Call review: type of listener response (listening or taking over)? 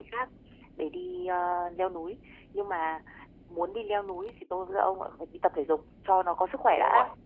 taking over